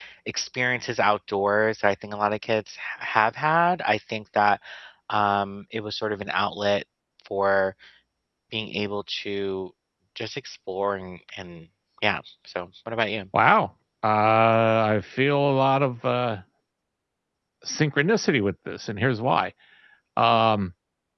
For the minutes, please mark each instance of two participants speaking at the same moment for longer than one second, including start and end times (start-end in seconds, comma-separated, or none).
none